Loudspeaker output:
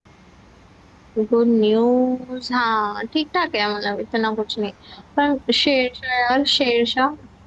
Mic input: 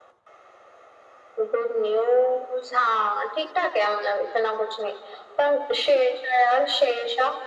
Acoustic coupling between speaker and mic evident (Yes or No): Yes